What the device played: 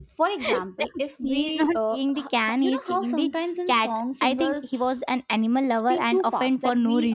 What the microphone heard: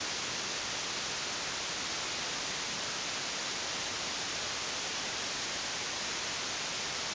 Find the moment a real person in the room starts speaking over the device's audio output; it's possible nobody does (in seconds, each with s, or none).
none